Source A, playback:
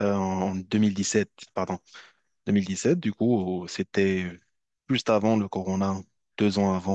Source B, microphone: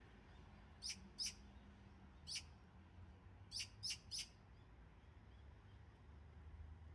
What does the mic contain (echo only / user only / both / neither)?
neither